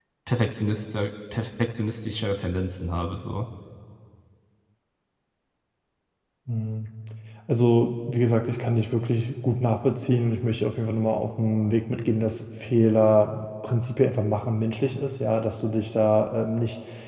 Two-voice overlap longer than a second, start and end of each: none

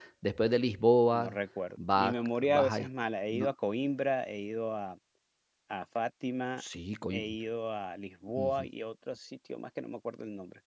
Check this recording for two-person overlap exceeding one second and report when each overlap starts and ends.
none

